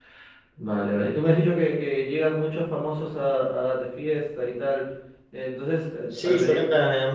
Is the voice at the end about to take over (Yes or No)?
Yes